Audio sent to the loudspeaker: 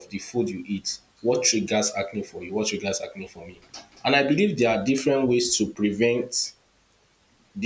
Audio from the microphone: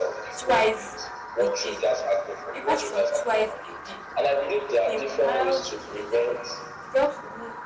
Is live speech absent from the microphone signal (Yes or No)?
No